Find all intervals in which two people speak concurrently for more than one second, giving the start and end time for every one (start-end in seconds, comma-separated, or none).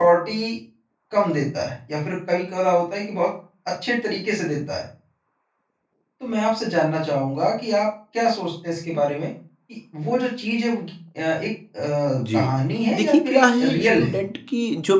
13.0-14.2